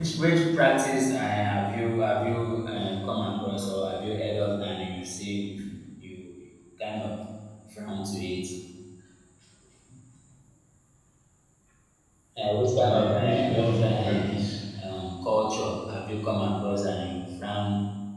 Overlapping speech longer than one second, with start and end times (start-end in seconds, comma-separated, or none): 12.8-14.4